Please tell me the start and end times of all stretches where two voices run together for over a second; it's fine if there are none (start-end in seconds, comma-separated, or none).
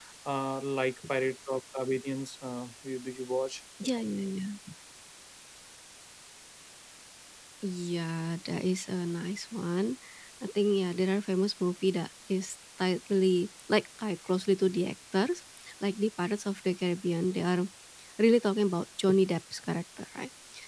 none